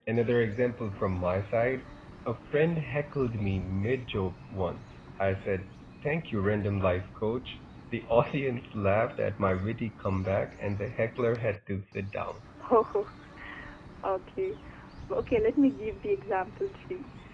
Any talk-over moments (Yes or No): No